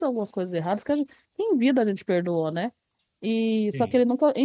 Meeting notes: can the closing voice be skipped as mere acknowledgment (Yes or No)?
Yes